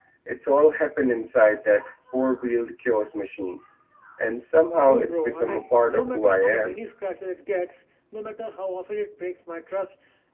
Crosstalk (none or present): present